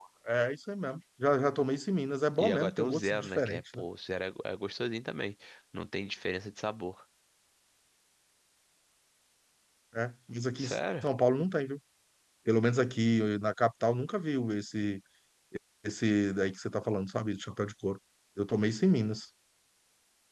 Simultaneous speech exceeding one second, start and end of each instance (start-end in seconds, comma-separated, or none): 2.4-3.8